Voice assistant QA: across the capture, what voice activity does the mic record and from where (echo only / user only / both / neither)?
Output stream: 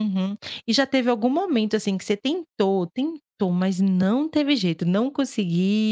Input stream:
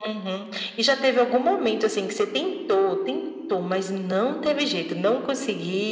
echo only